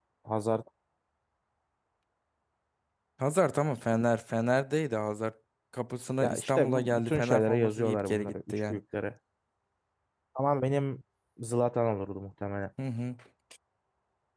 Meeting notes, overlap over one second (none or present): present